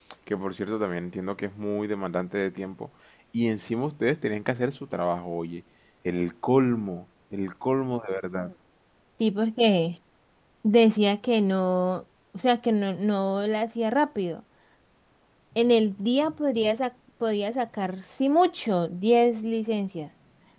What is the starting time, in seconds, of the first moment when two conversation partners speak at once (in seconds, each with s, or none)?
none